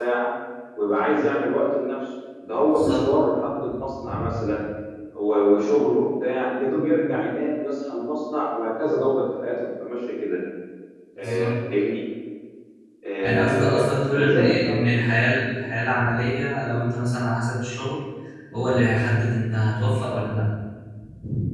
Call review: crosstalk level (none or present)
present